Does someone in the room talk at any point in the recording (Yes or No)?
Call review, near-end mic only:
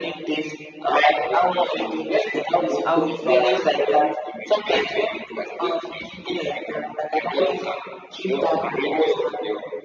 Yes